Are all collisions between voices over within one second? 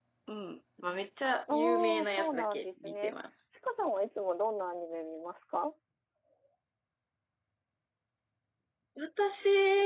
No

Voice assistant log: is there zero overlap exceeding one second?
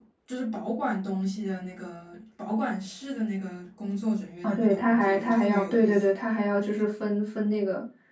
No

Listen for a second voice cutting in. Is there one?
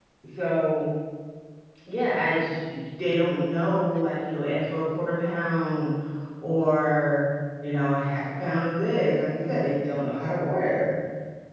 No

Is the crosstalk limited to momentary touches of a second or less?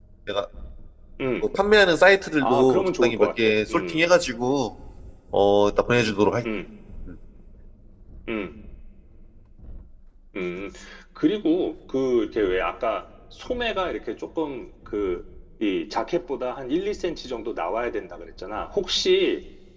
No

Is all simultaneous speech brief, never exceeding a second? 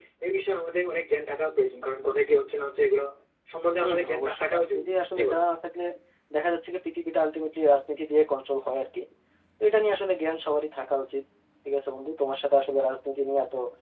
No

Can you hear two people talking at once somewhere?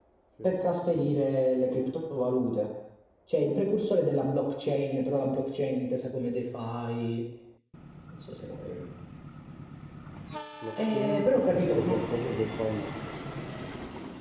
Yes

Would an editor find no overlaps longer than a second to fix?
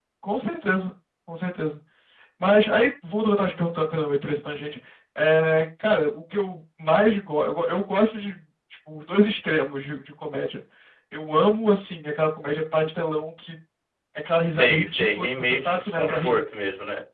No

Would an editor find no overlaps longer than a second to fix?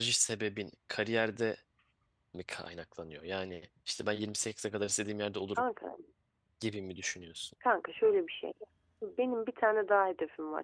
Yes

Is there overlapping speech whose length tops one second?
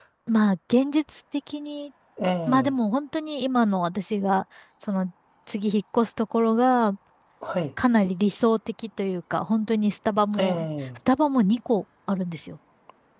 No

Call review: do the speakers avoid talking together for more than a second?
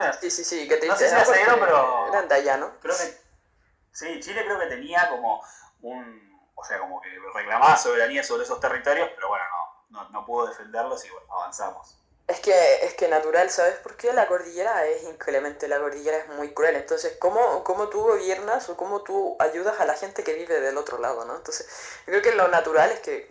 No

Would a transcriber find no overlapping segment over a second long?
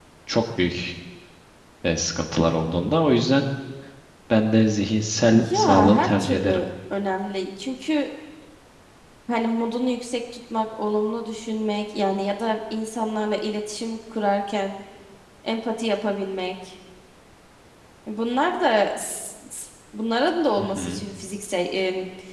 No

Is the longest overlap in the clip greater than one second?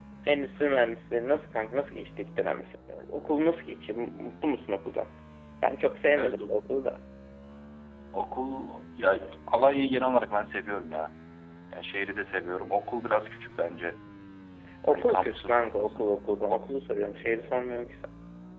Yes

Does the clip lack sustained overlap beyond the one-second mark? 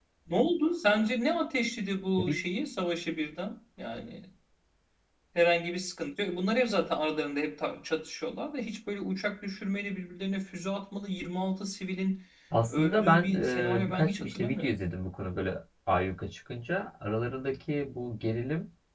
No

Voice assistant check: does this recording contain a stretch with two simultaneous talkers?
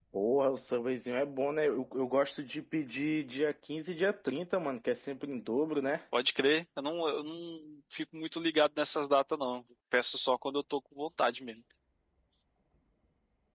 No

